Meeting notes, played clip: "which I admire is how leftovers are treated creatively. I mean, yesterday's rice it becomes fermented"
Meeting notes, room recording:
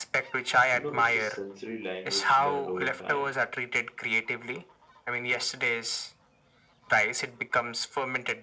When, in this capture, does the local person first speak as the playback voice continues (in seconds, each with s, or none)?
0.7 s